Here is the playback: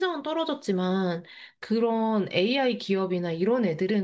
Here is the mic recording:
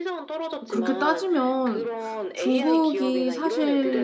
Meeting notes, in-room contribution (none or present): present